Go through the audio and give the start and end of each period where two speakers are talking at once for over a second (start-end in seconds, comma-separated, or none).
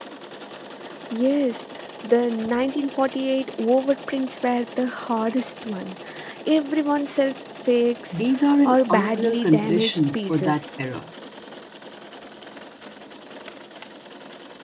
8.6-10.6